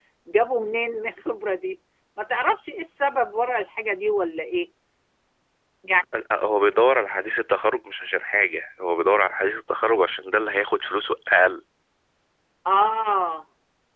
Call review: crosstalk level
none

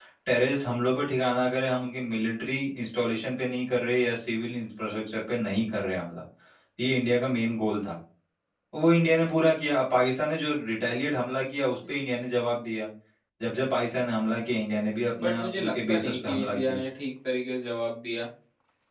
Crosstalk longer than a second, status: present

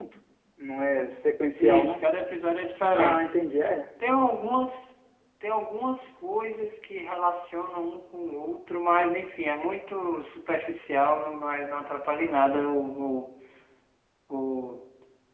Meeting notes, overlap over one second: none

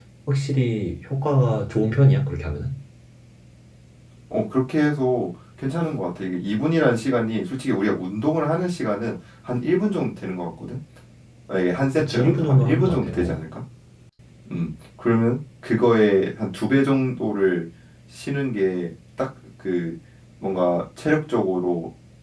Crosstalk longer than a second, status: present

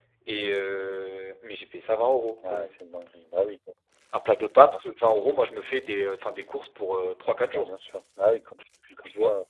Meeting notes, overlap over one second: none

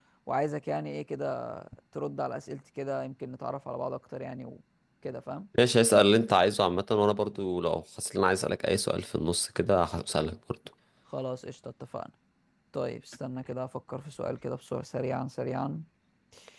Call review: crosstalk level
none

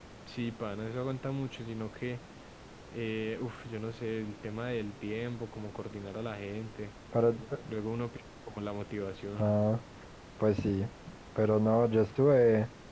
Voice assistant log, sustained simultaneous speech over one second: none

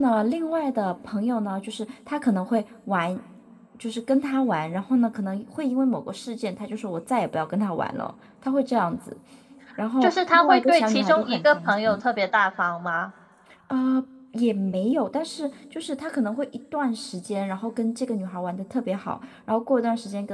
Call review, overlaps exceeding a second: present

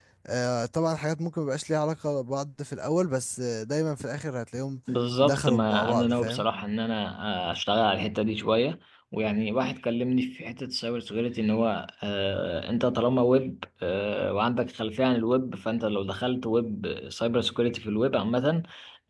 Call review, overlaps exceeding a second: present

